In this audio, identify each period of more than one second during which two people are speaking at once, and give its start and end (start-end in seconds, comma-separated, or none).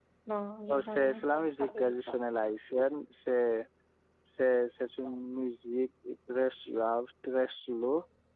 0.7-2.1